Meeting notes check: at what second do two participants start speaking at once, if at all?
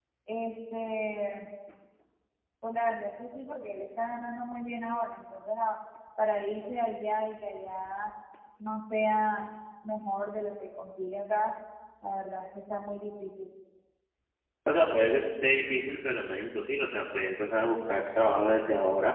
none

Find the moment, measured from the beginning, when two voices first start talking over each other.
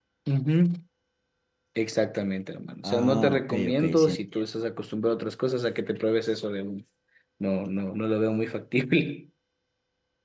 2.8 s

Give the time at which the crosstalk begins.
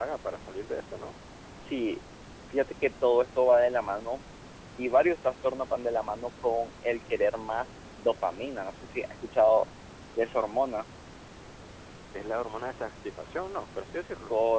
none

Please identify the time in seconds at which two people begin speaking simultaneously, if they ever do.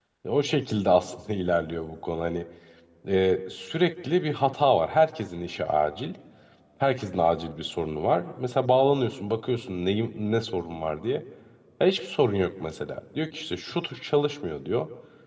none

